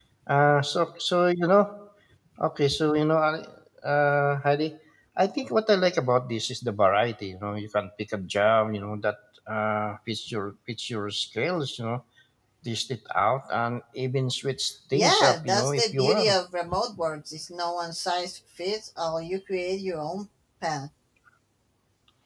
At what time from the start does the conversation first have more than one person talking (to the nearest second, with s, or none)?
15 s